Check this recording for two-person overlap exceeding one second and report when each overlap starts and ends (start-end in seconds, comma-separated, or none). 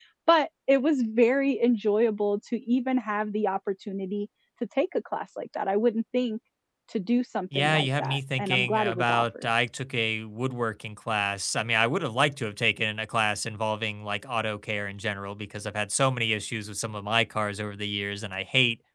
7.6-9.5